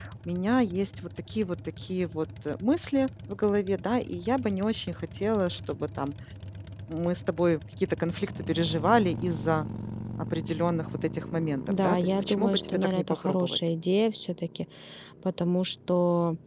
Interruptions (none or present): present